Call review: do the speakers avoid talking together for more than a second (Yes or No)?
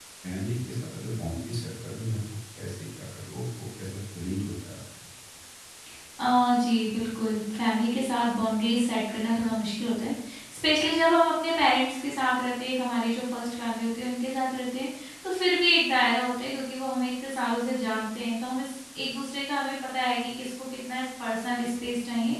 Yes